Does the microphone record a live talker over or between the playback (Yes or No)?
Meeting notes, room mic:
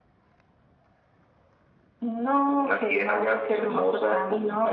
No